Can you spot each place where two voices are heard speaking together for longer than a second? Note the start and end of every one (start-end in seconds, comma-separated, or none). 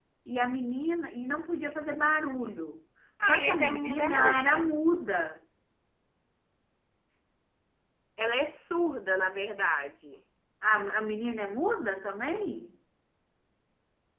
3.3-4.7